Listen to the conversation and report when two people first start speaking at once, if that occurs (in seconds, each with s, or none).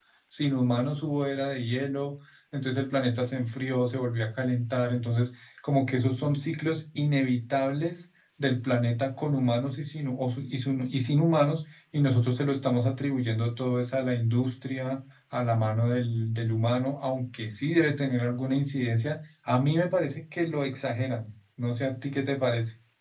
none